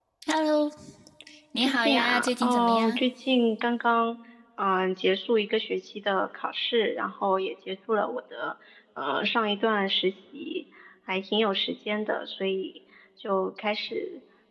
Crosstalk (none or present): present